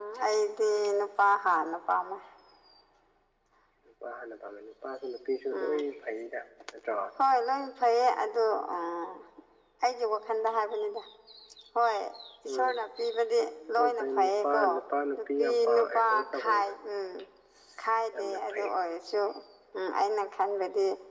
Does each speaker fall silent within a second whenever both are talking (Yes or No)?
No